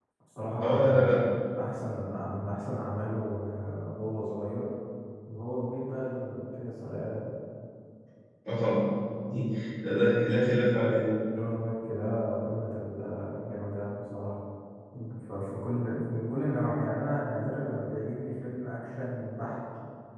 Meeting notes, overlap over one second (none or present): none